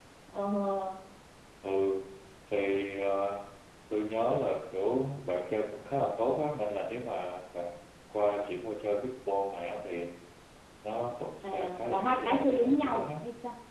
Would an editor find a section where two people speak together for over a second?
Yes, from 11.4 s

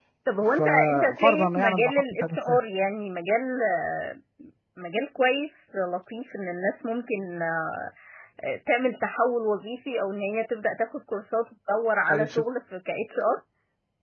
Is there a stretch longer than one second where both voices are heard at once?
Yes, from 0.6 s

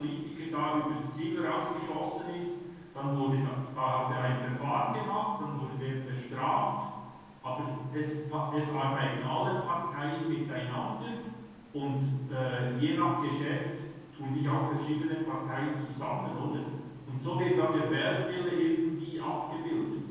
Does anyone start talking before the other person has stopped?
No

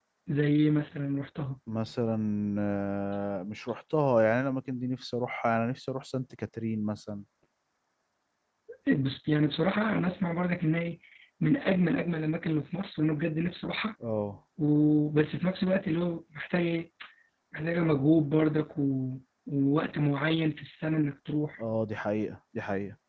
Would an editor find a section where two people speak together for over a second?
No

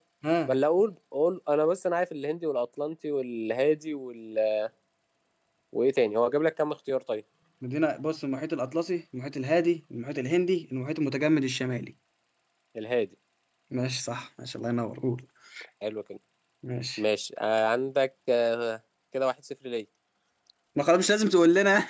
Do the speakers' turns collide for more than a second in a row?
No

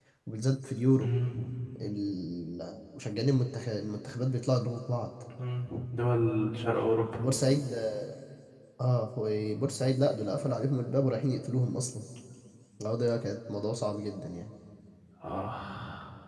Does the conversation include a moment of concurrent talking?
No

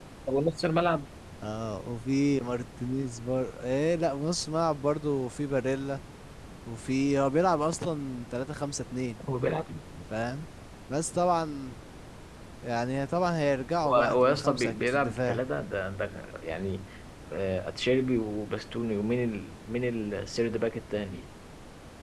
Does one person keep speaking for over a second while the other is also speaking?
Yes, from 13.8 s

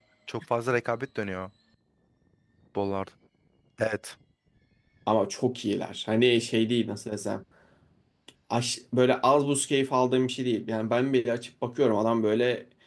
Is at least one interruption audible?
No

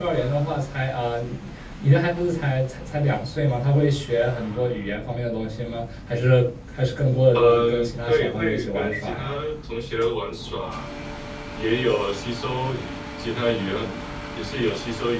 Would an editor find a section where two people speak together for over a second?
Yes, from 7.3 s

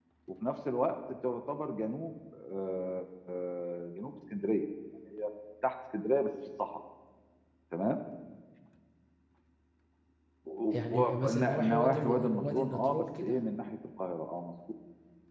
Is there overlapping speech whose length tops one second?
Yes, from 10.9 s

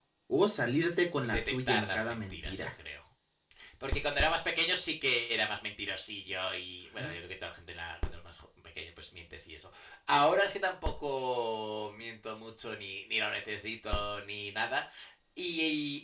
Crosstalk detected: Yes, from 1.2 s

